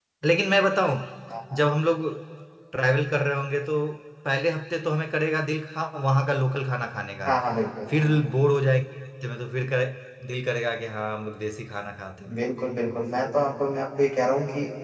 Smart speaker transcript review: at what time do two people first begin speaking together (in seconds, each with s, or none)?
none